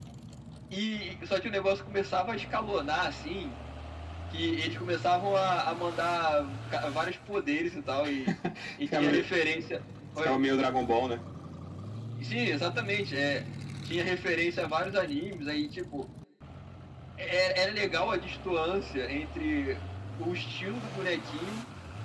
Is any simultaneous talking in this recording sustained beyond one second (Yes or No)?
No